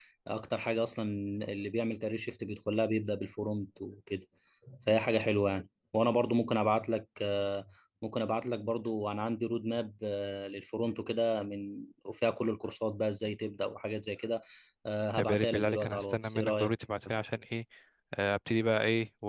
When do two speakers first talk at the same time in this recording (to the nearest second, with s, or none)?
15 s